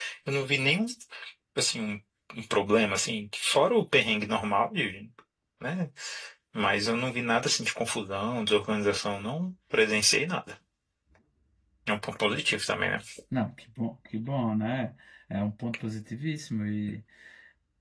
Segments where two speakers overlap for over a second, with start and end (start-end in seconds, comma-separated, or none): none